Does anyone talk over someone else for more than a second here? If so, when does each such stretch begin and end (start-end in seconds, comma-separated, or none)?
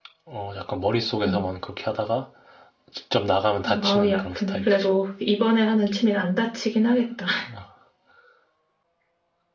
3.6-4.9